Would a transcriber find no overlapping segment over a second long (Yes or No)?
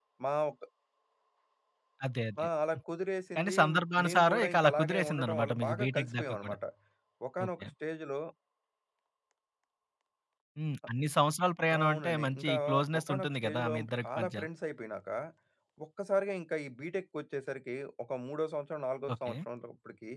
No